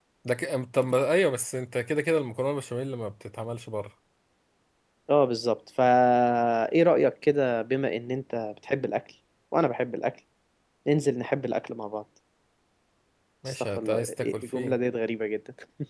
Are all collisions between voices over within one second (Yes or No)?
No